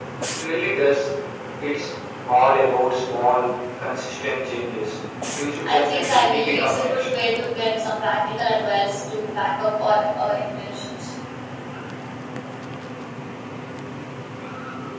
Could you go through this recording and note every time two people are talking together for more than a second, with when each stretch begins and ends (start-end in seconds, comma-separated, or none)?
5.6-7.0